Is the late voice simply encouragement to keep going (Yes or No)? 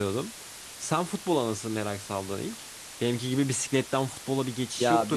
No